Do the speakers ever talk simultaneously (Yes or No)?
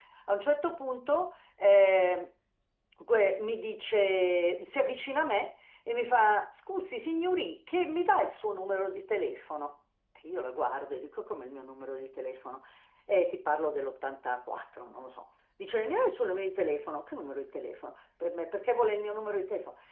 No